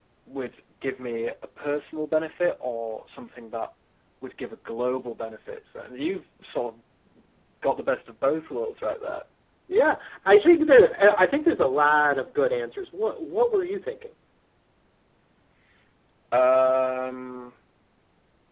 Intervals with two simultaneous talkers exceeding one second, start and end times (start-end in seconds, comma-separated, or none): none